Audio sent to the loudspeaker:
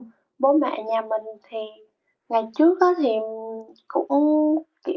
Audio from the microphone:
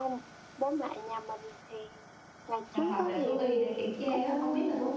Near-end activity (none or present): present